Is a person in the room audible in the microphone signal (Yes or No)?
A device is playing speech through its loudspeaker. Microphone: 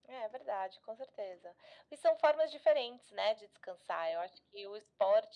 No